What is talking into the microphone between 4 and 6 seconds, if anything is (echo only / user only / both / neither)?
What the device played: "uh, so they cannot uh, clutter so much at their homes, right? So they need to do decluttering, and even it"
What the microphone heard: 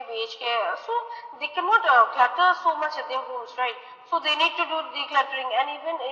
echo only